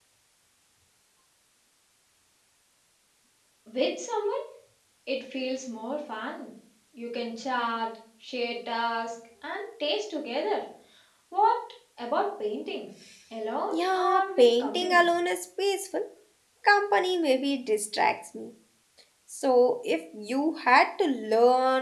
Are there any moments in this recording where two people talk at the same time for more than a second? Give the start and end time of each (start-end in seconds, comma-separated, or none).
13.7-15.0